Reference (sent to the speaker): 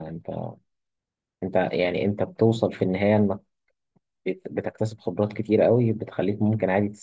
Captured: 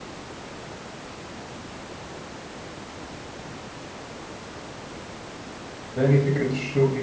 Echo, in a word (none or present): none